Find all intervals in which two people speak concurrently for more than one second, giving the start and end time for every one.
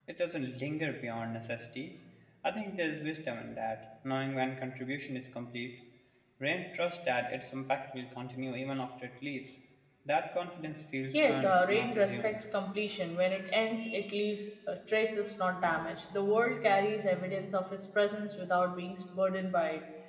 11.1-12.4

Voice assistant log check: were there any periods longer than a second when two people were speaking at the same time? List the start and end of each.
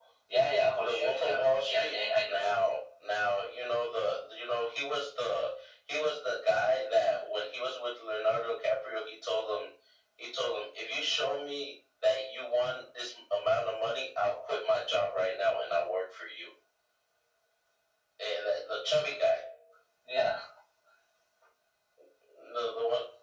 0.8-2.8

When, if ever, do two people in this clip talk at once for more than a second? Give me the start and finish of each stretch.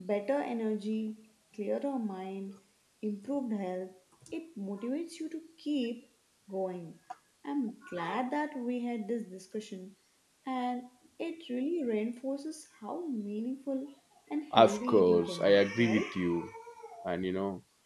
14.5-16.1

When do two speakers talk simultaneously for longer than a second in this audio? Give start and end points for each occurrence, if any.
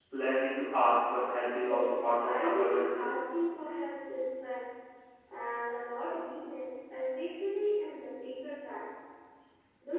1.6-3.1

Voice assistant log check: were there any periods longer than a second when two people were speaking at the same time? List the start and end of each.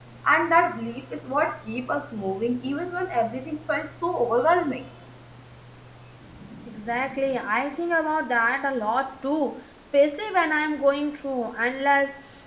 none

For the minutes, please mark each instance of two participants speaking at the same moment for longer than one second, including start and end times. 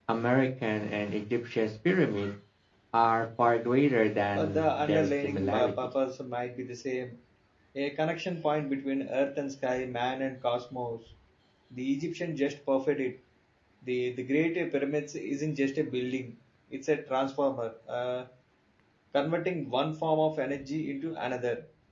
4.2-5.7

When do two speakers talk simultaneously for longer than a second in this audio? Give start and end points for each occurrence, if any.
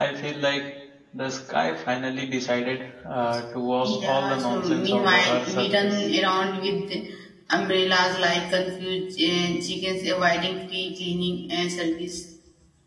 3.8-6.1

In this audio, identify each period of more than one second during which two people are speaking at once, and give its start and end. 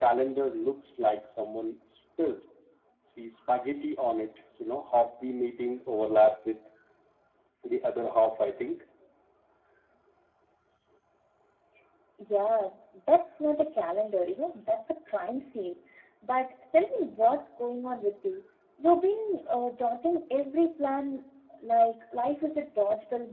none

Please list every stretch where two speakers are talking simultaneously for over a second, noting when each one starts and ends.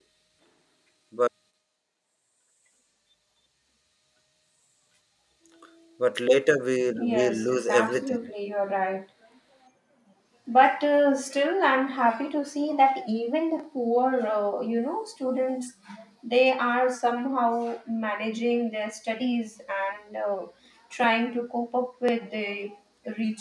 7.0-8.3

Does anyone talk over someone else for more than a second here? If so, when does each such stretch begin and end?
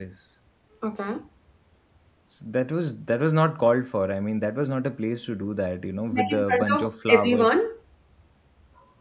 6.1-7.5

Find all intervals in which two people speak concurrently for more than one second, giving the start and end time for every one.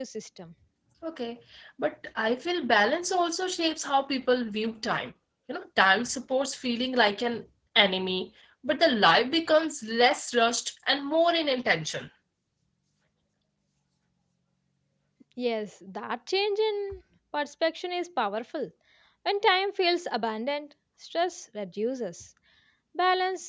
none

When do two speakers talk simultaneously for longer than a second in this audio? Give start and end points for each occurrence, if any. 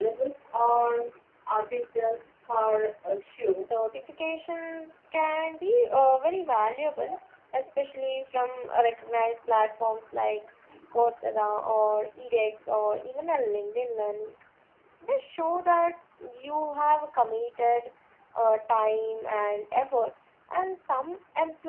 none

